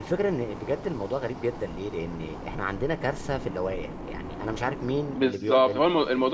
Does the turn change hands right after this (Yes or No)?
Yes